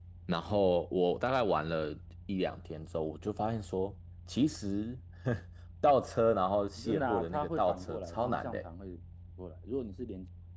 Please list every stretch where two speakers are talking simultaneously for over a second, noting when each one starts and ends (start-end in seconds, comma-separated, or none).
6.8-8.7